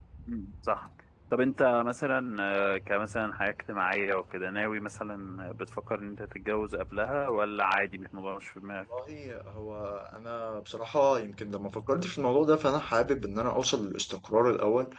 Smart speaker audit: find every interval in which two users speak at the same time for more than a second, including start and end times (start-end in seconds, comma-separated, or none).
none